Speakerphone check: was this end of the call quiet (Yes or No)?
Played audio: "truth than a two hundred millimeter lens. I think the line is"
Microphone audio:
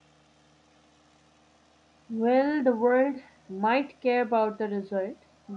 No